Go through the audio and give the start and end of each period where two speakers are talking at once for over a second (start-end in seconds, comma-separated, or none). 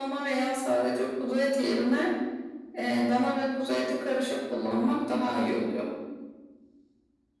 none